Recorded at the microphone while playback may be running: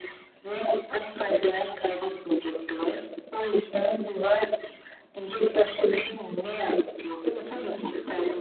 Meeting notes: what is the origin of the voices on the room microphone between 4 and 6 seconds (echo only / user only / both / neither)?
echo only